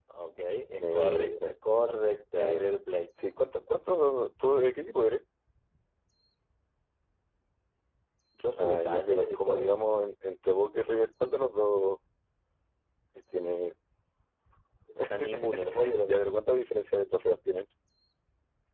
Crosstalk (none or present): present